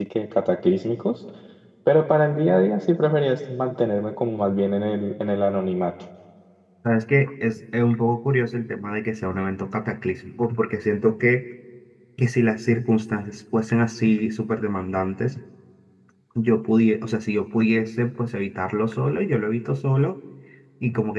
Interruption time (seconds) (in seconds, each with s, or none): none